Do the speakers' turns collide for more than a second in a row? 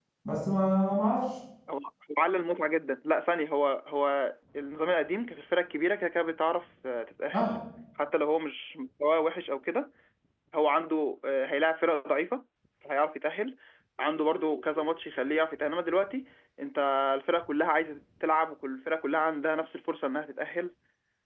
No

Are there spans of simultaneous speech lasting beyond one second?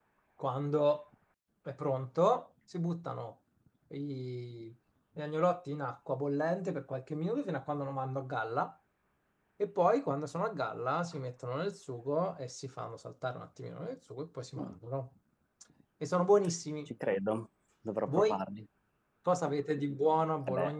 No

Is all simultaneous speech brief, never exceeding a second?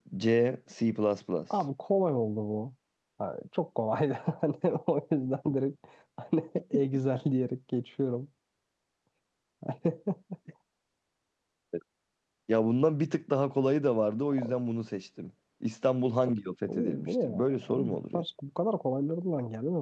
No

